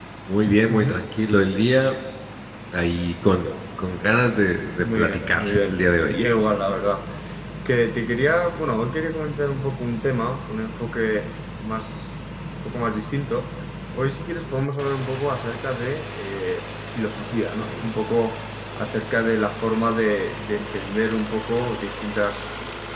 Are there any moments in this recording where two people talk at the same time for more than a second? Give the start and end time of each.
4.8-6.1

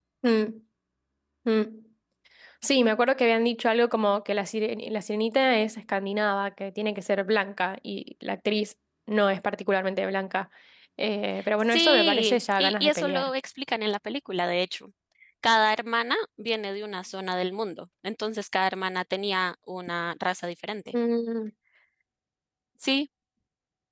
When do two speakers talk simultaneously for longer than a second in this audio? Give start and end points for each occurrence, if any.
11.6-13.3

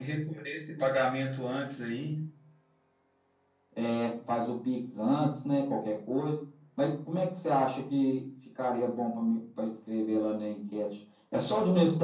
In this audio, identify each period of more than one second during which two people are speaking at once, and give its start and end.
none

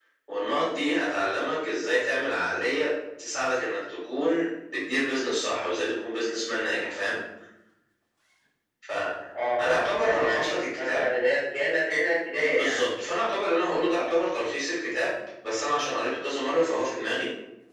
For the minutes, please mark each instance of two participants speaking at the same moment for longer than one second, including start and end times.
9.7-11.0

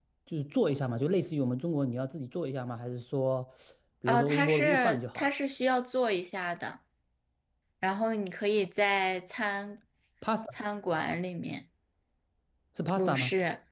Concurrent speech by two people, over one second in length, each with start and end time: 4.1-5.3

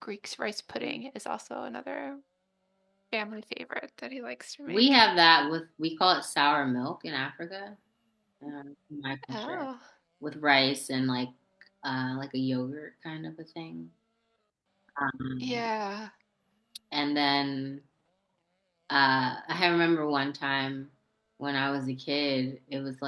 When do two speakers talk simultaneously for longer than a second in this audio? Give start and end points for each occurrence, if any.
none

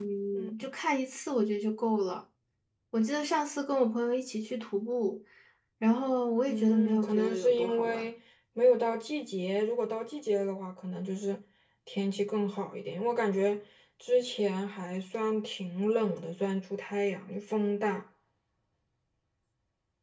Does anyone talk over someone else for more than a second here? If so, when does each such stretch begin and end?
6.5-8.1

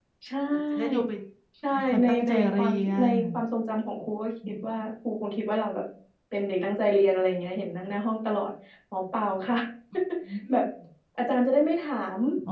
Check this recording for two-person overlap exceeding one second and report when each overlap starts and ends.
1.7-3.1

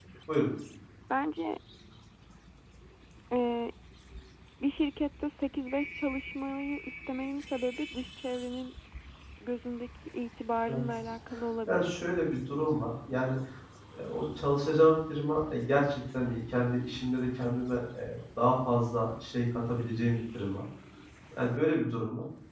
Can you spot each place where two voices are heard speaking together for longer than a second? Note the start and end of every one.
none

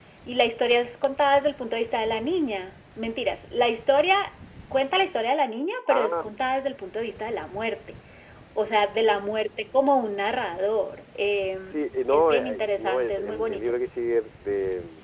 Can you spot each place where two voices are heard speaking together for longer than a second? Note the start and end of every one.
12.1-13.8

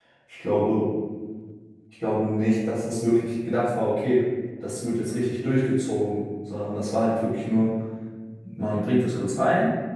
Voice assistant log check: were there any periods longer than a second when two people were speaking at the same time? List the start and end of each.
none

